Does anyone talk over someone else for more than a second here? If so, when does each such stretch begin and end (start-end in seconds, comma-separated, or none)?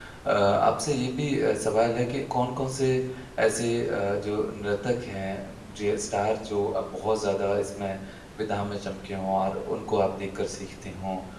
none